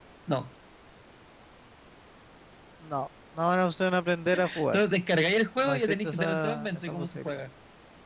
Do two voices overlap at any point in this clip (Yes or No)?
Yes